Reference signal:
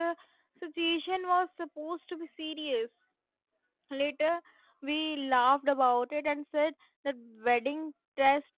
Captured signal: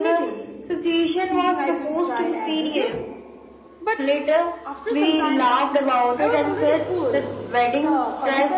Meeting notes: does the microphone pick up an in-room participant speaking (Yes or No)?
Yes